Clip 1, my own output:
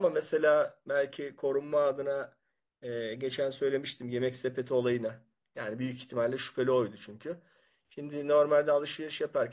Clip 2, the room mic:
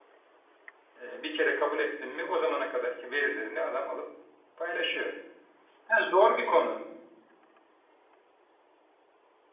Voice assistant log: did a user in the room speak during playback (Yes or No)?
Yes